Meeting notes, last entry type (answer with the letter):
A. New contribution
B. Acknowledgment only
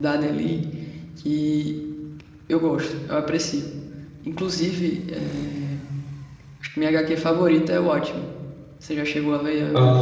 A